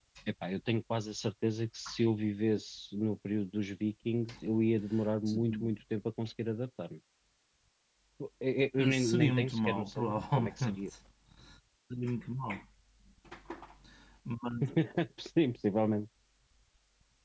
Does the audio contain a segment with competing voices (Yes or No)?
Yes